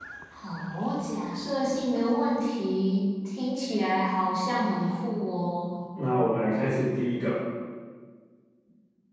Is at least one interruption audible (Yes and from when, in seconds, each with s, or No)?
No